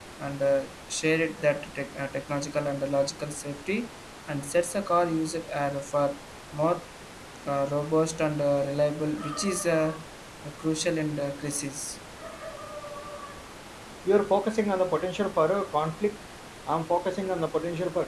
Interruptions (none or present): none